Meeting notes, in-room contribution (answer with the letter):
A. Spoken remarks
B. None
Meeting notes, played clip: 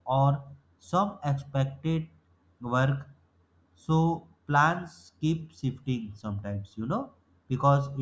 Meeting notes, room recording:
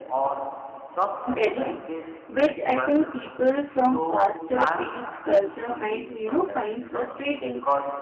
A